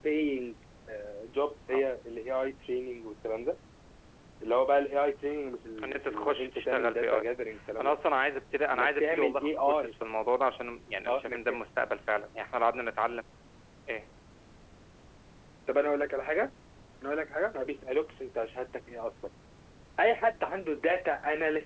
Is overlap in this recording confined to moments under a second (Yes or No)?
No